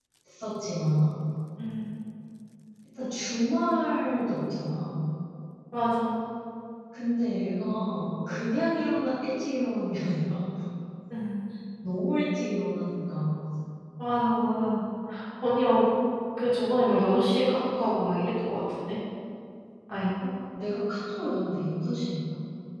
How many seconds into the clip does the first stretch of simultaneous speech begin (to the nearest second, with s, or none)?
none